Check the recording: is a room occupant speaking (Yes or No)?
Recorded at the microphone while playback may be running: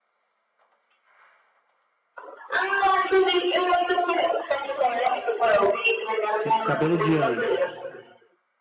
Yes